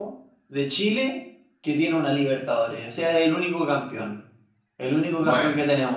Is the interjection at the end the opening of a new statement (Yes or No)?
No